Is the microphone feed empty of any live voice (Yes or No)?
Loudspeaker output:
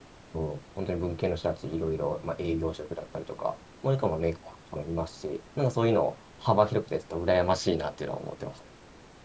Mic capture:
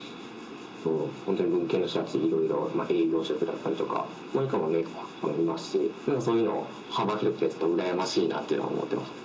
Yes